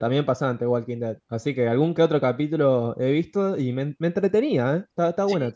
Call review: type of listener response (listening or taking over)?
taking over